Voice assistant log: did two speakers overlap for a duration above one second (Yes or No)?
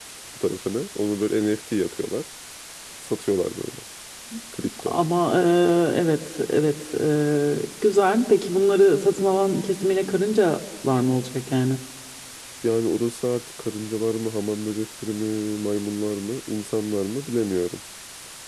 No